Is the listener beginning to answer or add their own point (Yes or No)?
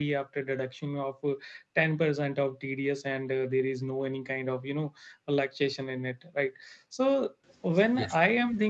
No